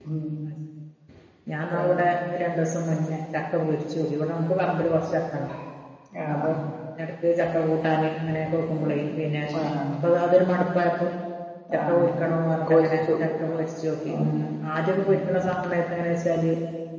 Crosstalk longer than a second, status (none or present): none